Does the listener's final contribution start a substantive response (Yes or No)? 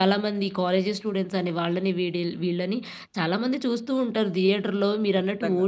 Yes